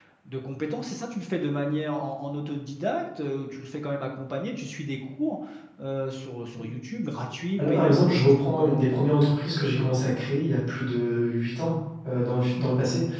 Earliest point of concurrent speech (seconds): 7.6 s

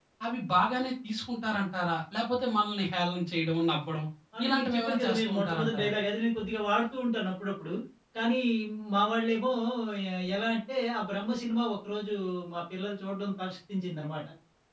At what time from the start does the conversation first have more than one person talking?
4.4 s

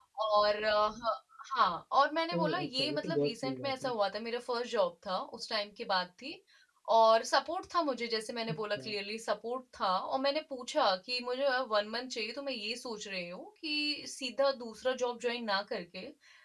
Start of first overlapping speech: 2.3 s

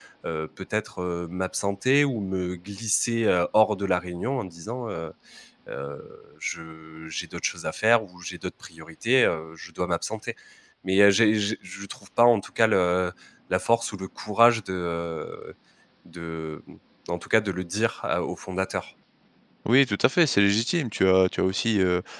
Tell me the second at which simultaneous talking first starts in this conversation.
none

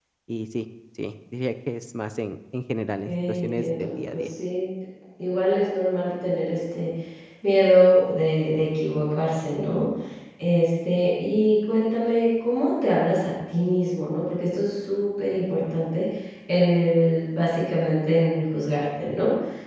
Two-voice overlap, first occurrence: 3.1 s

